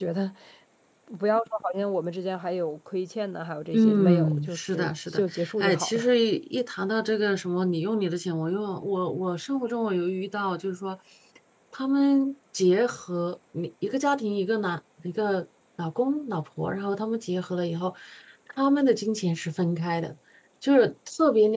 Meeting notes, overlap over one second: present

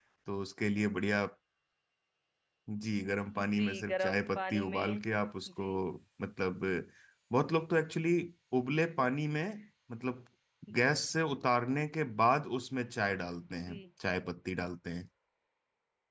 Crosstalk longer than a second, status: present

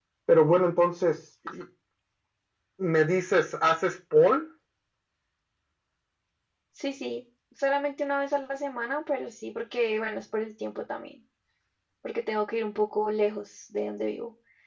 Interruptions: none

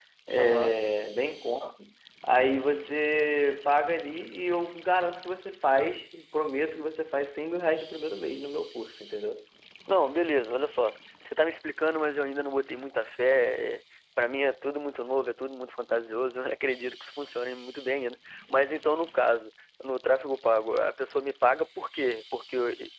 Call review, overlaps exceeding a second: none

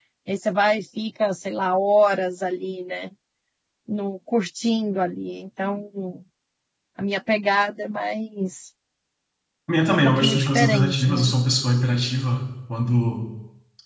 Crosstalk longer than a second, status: present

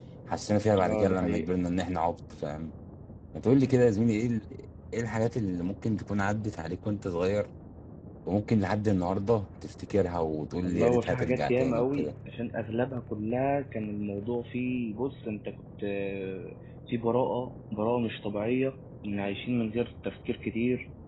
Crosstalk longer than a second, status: present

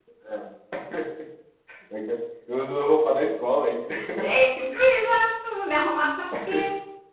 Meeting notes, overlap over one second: none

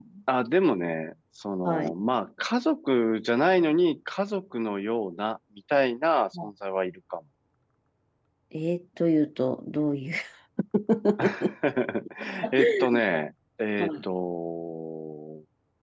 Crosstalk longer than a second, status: none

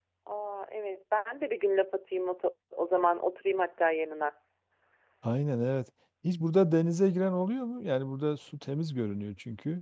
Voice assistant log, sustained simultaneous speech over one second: none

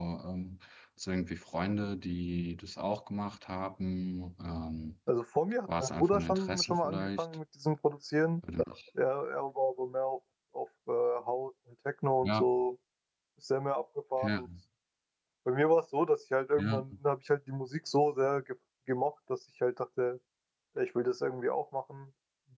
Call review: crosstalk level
present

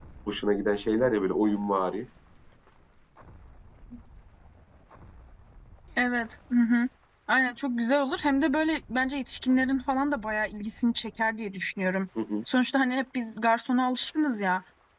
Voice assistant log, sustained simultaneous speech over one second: none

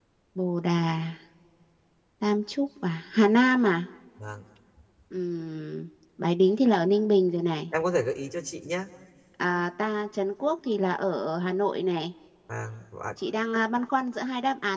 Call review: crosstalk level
none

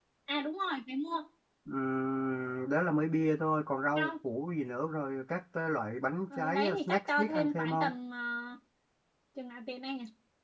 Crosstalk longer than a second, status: present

